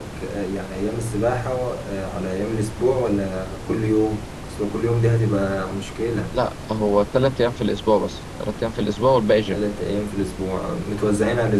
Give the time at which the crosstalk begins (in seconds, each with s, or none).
none